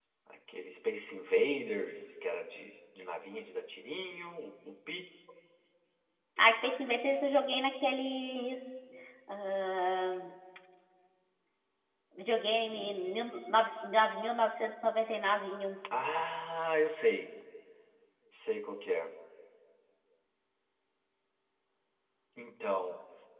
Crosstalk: none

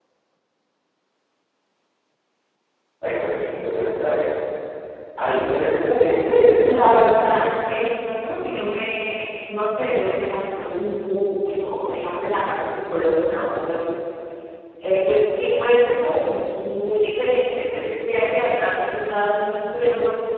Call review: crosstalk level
present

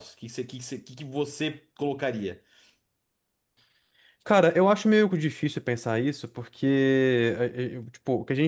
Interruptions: none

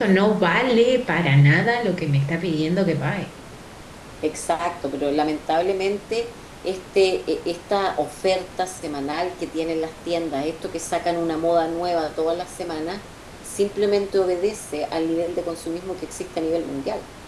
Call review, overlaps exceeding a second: none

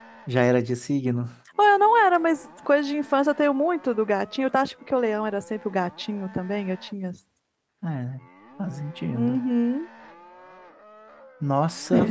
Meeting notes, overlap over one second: none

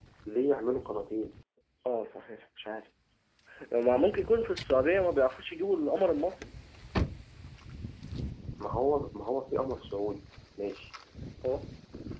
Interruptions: none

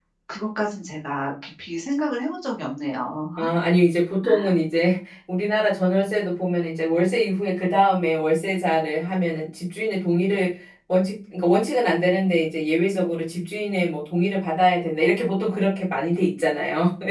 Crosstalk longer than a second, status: none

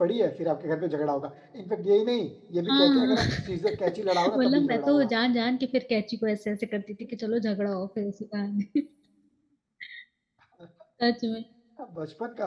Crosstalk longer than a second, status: present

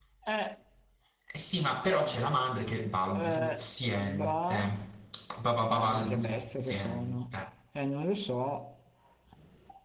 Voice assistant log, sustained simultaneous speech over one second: present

